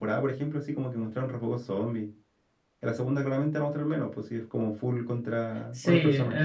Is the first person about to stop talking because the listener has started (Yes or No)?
Yes